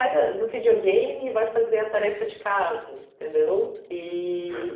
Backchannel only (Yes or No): Yes